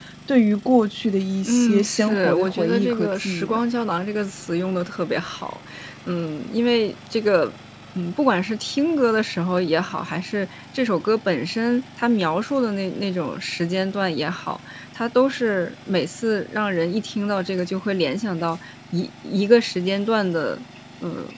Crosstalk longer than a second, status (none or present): present